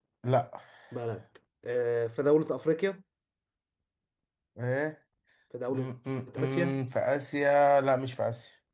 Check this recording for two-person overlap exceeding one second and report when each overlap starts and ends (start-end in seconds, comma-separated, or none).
none